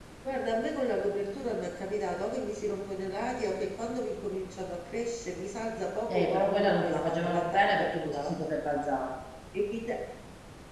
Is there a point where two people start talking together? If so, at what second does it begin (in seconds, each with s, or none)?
6.1 s